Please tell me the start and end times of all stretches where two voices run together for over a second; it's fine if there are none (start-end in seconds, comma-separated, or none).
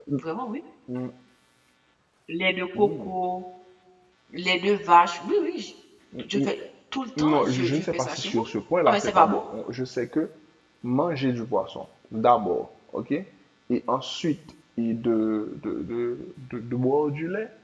7.2-8.4